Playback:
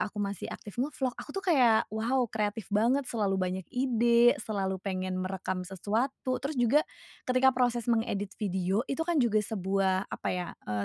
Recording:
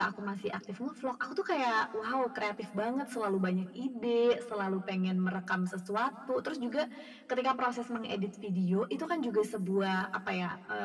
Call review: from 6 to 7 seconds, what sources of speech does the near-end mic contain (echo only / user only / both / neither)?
echo only